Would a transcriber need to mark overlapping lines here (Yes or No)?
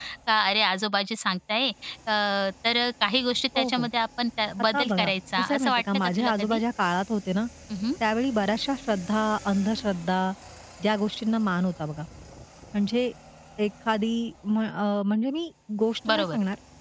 Yes